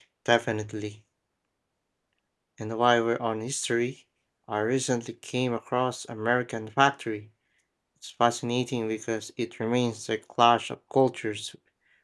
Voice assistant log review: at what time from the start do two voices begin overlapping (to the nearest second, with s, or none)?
none